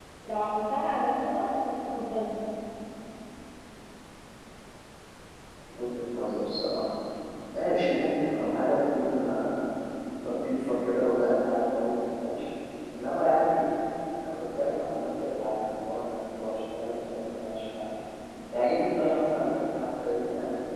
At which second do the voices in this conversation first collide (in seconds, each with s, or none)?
none